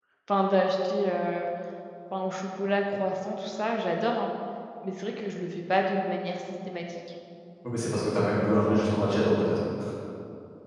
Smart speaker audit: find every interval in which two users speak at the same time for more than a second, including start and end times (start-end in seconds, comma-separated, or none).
none